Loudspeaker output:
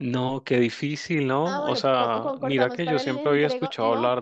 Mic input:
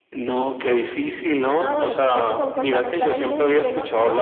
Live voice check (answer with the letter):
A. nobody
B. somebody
A